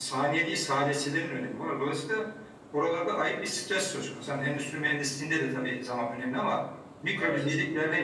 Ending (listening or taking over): listening